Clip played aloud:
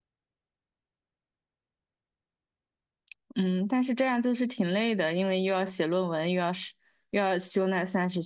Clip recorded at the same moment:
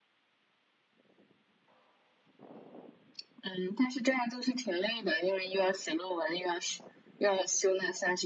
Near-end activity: none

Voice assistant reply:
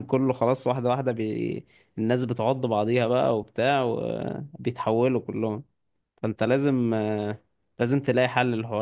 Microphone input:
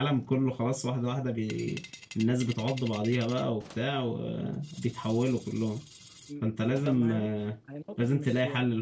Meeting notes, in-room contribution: present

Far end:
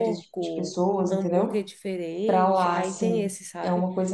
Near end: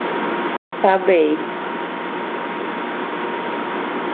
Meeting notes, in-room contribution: present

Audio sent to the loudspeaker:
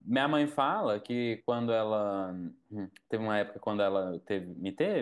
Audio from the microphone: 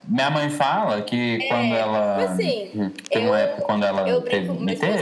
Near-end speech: present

